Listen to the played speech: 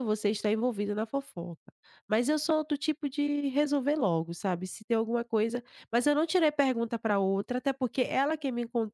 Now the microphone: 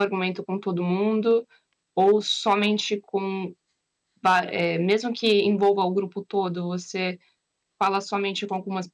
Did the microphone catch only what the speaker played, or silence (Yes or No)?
No